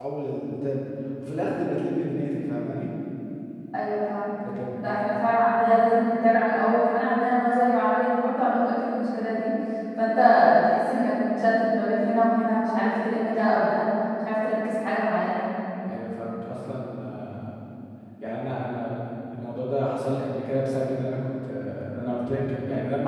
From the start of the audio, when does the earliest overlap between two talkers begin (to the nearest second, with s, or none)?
none